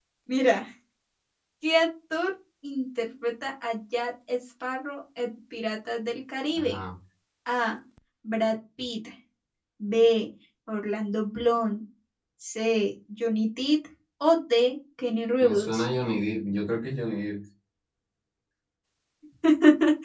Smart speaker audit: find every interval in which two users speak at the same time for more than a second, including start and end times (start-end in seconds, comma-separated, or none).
none